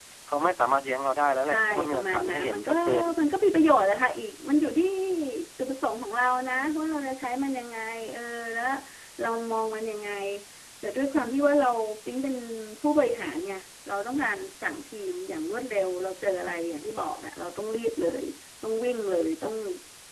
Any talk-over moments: Yes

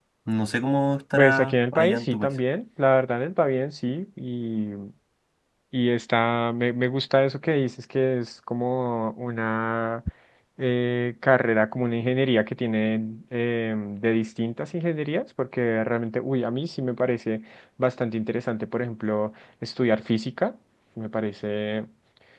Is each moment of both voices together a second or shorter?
No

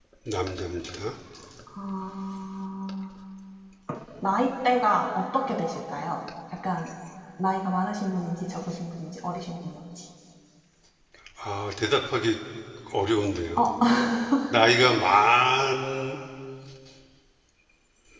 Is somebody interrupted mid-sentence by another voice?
No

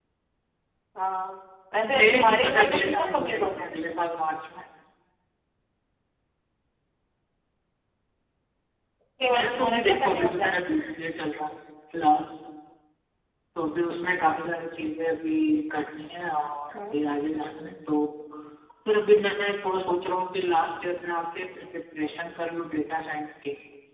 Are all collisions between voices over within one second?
No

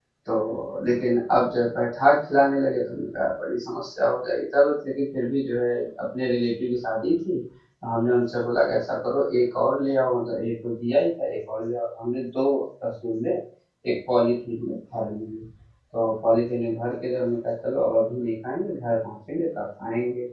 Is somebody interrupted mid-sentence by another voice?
No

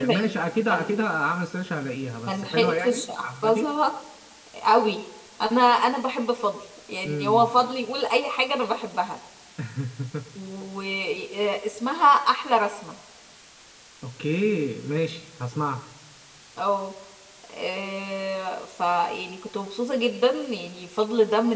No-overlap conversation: No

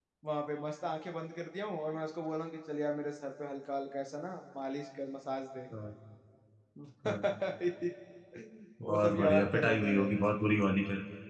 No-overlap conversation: No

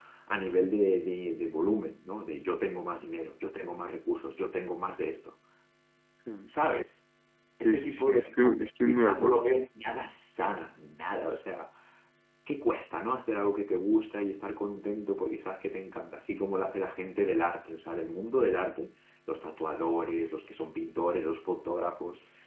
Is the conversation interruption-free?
No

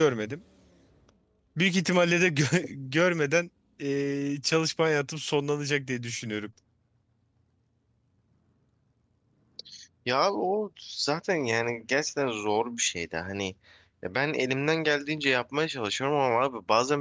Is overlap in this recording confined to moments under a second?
Yes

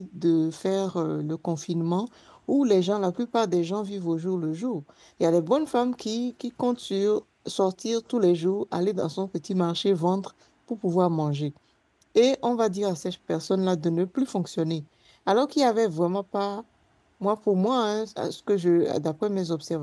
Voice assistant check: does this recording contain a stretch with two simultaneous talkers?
No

